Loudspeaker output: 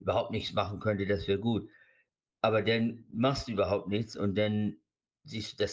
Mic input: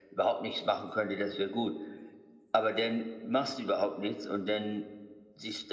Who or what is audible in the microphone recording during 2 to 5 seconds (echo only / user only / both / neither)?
echo only